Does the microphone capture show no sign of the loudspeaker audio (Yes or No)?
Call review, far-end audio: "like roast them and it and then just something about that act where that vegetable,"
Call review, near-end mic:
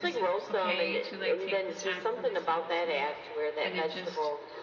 No